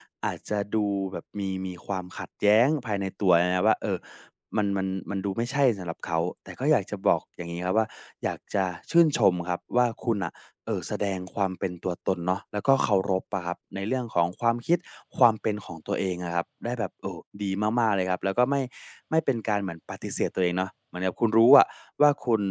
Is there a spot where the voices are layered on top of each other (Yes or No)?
No